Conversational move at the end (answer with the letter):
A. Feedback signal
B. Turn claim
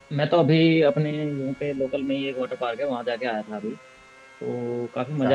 A